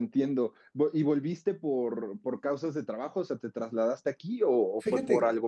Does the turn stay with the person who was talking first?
No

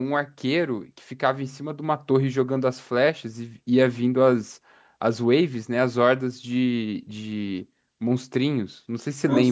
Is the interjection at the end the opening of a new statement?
Yes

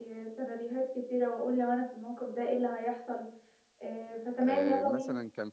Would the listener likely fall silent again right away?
No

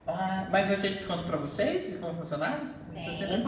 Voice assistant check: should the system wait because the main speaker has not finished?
No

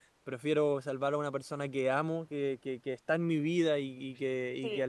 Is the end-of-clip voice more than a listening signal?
No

